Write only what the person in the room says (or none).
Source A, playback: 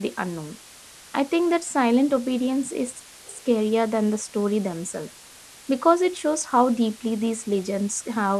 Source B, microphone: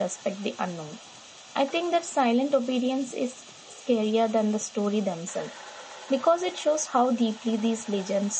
none